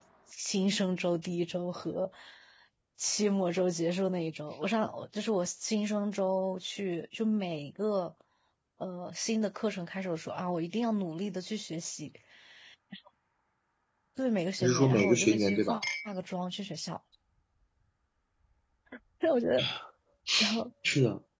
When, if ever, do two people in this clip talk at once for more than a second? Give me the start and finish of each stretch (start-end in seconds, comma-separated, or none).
14.6-15.8